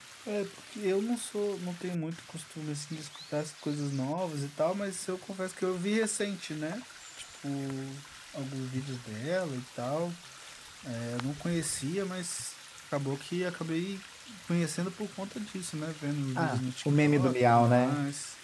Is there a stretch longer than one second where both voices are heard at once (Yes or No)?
Yes